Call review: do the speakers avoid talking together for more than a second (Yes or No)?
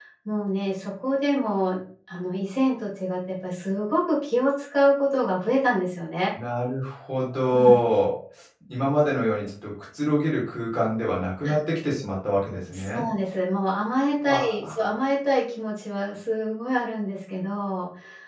Yes